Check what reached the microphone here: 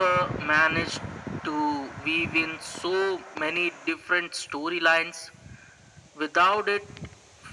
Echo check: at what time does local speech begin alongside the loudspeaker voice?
none

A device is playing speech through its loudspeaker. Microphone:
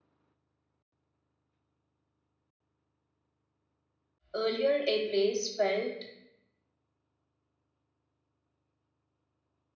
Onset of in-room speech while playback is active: 4.3 s

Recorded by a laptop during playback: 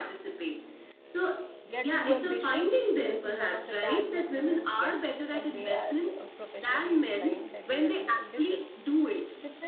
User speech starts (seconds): 1.6 s

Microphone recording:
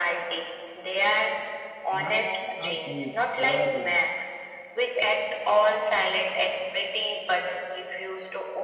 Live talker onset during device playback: 1.9 s

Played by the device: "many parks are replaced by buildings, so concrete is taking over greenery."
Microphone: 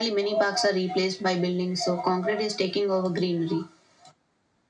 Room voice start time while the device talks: none

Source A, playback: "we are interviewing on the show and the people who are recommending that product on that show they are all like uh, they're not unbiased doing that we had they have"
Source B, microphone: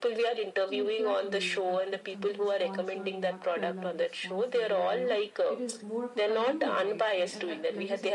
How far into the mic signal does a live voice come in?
0.7 s

